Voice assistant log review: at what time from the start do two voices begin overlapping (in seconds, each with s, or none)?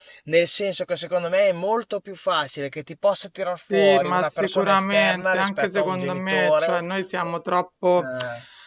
3.7 s